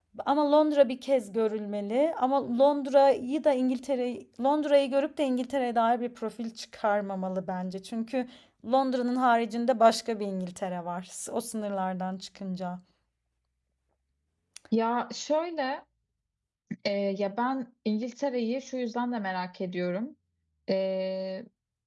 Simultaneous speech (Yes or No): No